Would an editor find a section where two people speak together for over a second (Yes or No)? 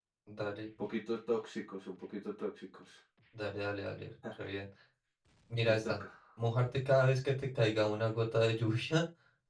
No